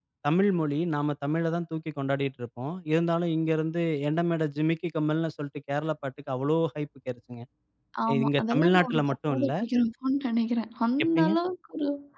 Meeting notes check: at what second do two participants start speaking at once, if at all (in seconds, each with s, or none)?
8.2 s